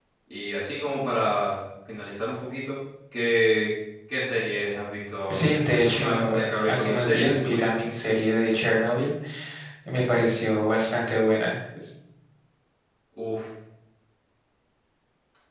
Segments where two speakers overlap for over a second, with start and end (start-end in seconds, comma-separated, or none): 5.3-7.7